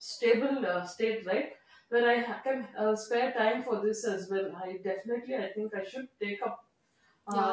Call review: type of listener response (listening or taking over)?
taking over